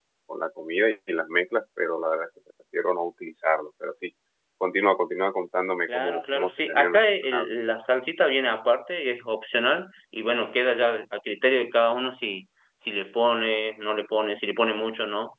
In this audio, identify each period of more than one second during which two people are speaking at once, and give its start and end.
5.9-7.5

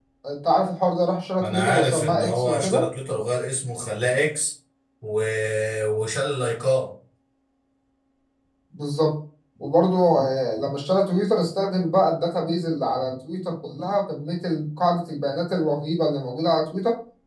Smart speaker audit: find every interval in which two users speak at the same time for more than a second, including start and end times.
1.4-2.9

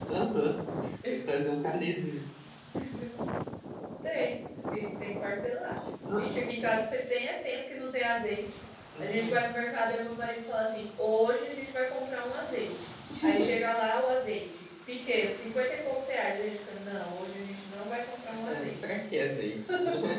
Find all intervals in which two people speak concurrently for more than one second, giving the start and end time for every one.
none

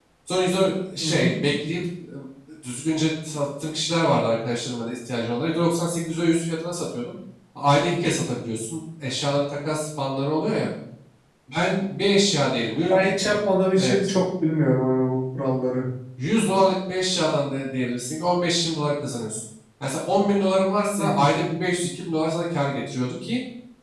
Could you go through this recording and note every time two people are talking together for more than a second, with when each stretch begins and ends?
none

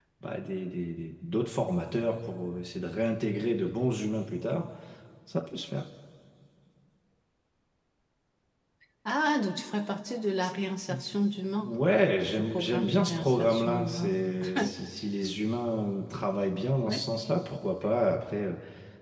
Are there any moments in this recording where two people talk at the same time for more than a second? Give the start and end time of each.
12.3-14.2

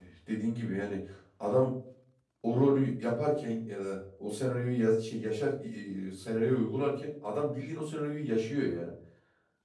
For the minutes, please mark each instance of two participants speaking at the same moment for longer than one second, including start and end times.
none

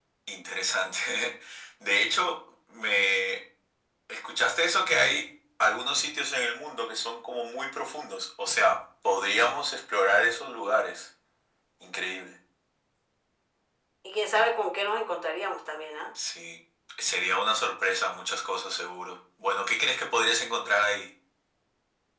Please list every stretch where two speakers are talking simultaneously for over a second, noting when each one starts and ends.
none

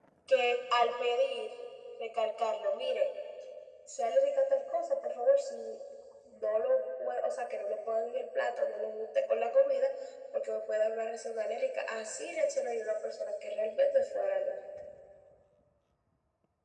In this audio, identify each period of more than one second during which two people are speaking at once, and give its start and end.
none

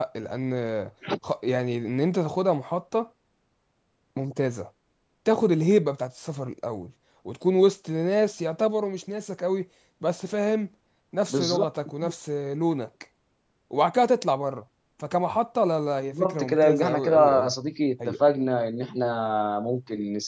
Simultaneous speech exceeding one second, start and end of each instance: 16.0-17.5

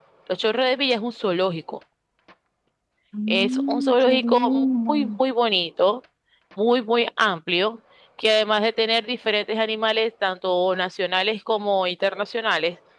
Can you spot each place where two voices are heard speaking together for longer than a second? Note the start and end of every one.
3.3-5.1

